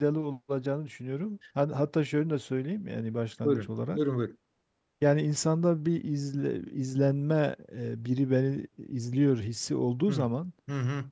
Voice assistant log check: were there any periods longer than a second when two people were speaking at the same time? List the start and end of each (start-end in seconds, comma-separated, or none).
none